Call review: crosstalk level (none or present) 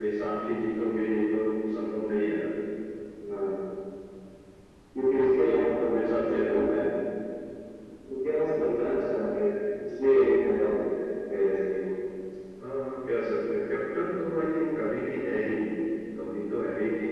present